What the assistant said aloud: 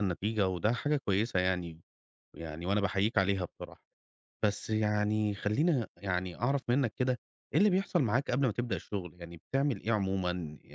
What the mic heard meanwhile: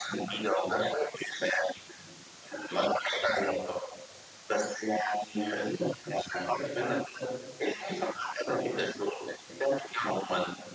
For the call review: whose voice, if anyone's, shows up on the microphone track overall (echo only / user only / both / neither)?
echo only